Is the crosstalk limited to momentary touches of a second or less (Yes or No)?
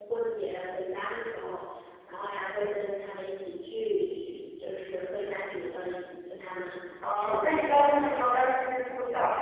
No